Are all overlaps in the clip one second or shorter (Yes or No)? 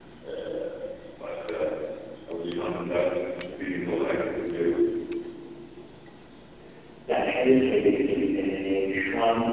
Yes